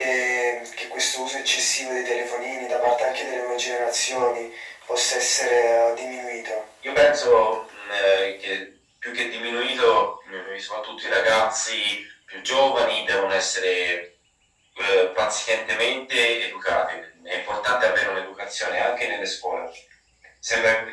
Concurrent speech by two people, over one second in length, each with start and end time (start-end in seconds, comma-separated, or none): none